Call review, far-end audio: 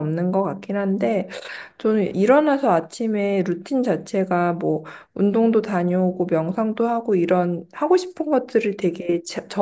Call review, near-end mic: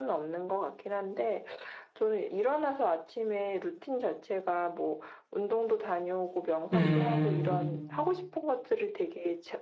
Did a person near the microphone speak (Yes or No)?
Yes